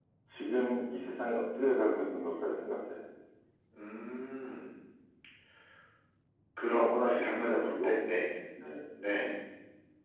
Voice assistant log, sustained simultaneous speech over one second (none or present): present